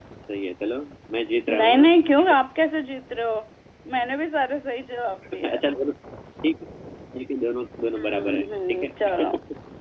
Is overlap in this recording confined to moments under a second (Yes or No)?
No